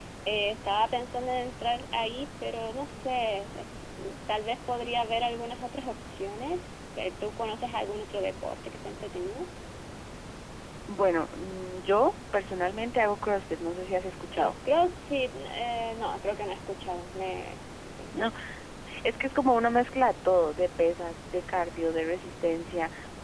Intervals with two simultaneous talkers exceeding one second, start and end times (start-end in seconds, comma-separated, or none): none